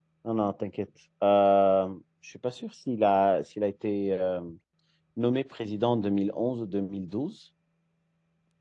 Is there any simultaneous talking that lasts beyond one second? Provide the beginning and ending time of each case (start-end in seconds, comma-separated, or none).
none